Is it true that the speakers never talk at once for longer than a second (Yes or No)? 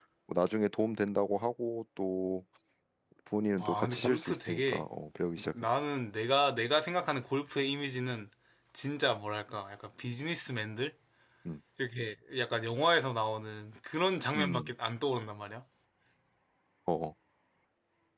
No